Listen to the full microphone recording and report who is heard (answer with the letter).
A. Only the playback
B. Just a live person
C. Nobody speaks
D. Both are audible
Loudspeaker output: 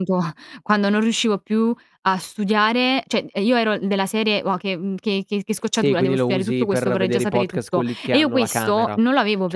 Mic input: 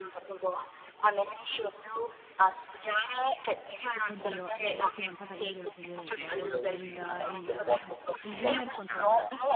D